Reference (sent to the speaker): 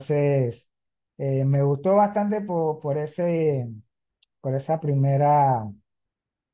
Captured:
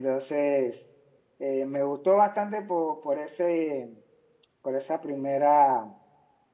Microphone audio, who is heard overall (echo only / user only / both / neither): echo only